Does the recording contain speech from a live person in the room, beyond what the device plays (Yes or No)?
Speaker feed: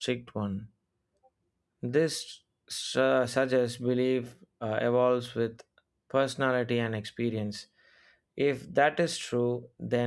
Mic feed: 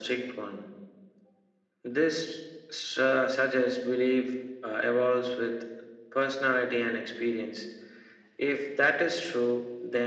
No